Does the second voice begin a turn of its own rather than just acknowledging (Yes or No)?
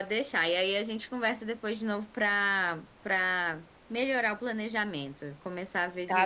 Yes